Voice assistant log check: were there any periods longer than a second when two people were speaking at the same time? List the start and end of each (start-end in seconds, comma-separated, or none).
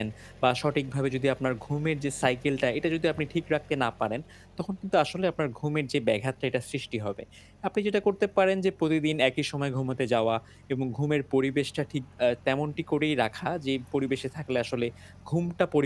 none